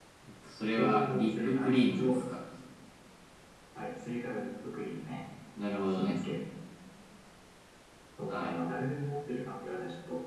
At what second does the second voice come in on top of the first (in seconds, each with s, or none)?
0.8 s